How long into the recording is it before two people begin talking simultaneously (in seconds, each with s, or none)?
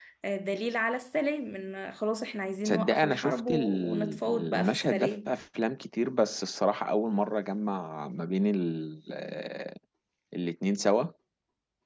2.6 s